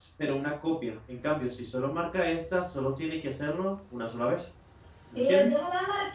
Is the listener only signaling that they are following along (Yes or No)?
No